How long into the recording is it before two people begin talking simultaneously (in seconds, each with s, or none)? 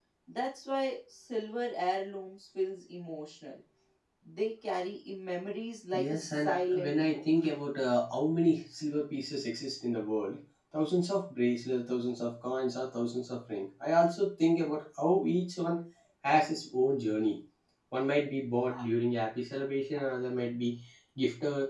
5.9 s